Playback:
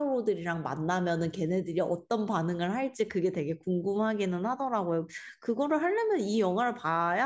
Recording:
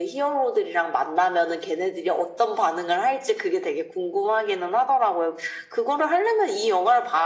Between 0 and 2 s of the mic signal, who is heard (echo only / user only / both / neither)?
echo only